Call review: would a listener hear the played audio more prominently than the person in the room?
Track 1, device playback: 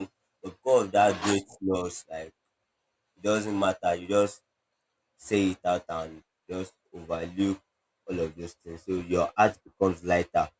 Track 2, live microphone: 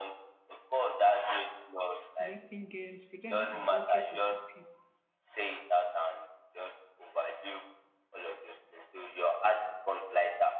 Yes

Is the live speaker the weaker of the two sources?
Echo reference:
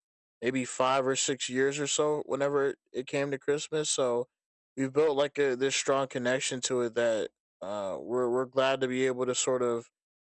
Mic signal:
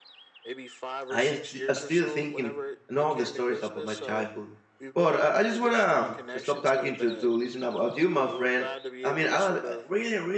No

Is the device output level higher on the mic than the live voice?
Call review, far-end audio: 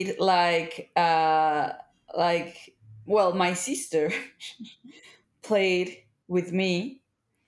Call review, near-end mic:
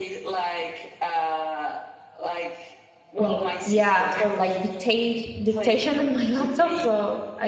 No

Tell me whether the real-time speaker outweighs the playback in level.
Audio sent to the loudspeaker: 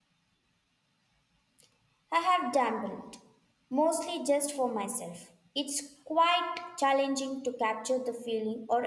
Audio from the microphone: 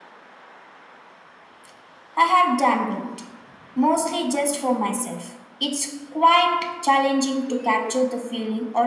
No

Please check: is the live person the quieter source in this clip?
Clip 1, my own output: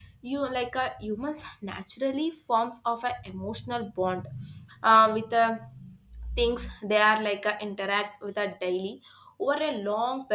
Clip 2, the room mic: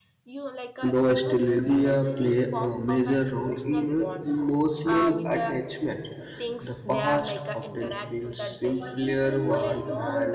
No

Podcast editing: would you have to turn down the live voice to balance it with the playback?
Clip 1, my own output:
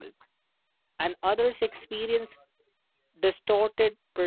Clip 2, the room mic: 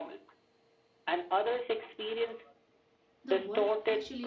No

